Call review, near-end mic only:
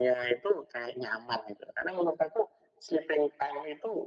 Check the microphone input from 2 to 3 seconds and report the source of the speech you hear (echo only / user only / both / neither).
echo only